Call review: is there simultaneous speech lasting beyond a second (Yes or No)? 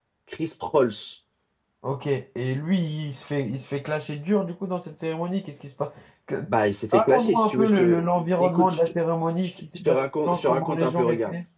Yes